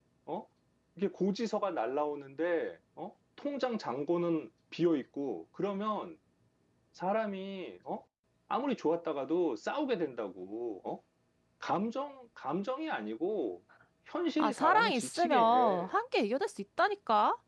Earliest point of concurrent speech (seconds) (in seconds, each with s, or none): 14.4 s